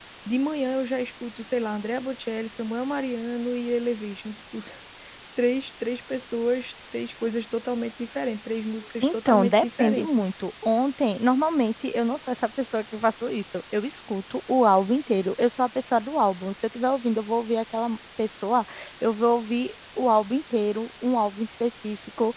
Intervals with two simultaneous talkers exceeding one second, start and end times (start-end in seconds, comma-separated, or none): 9.0-10.3